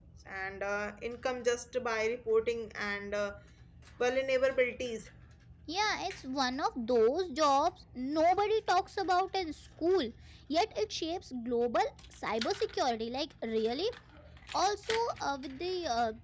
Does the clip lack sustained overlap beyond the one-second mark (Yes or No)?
Yes